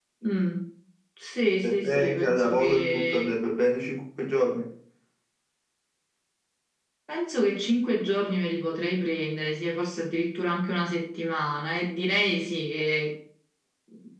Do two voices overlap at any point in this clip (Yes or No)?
Yes